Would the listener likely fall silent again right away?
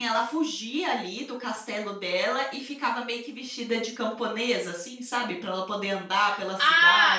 No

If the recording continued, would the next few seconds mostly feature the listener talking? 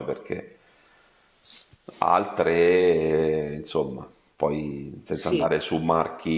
No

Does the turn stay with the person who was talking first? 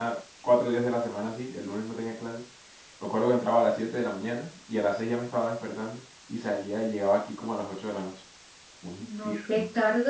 No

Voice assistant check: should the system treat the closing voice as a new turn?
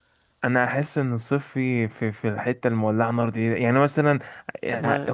No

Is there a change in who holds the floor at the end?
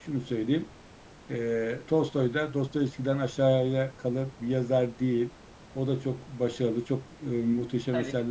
No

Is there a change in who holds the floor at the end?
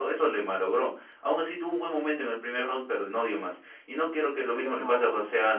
No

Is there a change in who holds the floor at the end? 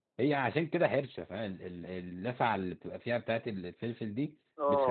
Yes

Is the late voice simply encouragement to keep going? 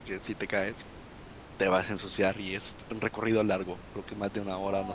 Yes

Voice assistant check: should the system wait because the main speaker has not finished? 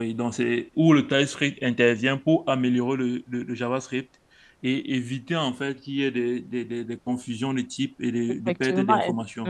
No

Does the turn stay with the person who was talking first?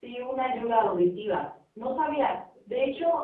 Yes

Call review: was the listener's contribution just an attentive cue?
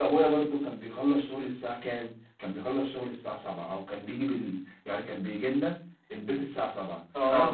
Yes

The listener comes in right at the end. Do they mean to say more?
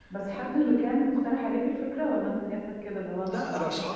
Yes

